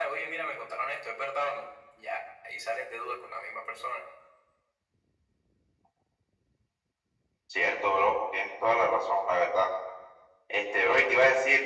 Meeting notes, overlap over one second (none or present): none